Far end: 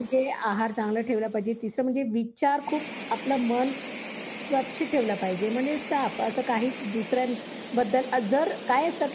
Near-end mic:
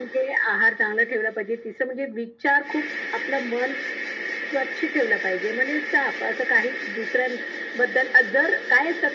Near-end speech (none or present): none